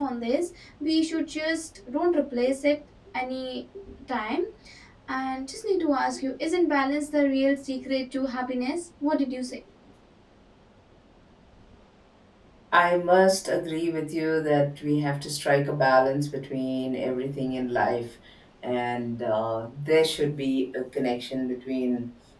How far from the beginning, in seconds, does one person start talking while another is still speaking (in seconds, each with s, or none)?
none